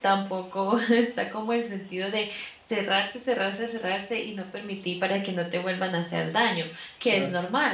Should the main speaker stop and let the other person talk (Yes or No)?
No